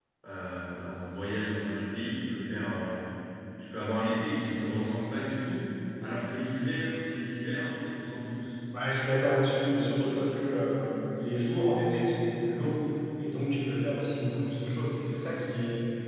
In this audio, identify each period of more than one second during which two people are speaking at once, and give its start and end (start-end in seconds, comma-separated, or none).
none